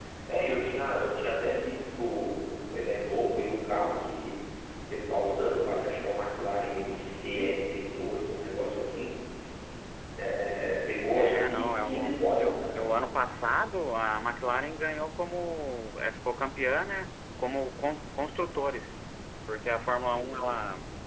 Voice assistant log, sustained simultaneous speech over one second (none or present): present